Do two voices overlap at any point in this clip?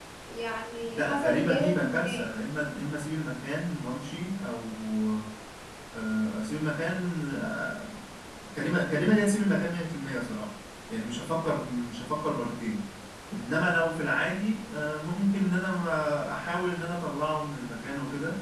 Yes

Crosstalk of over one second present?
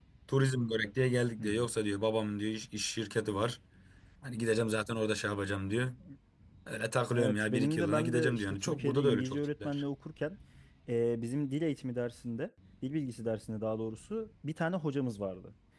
Yes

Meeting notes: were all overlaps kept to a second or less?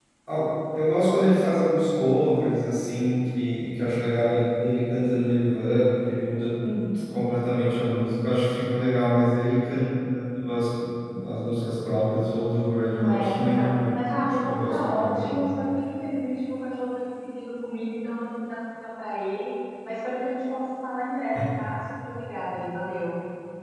No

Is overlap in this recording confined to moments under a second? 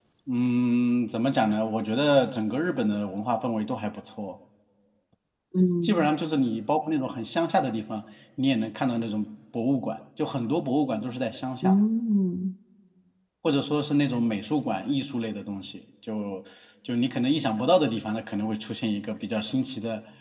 Yes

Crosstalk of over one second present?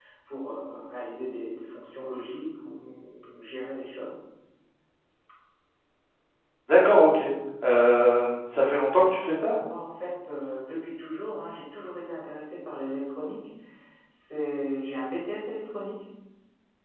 No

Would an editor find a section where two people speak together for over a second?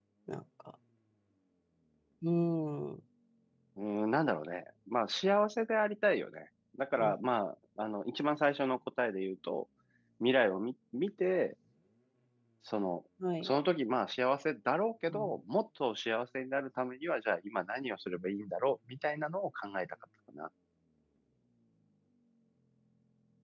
No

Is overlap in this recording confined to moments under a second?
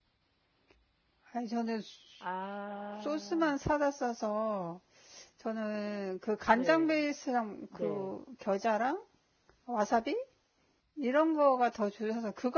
Yes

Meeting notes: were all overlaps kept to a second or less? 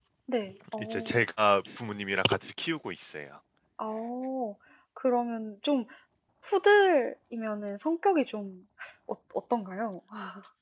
Yes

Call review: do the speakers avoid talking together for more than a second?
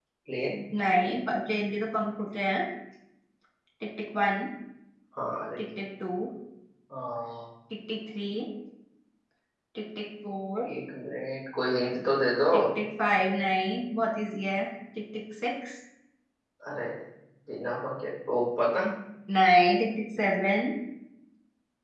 Yes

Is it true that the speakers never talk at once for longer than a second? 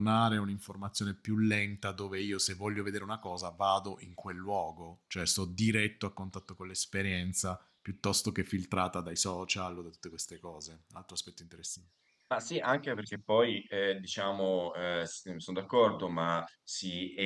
Yes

